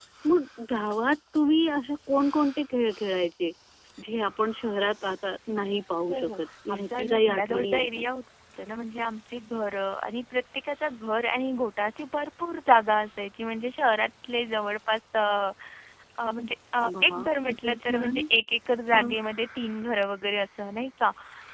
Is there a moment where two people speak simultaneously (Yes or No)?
Yes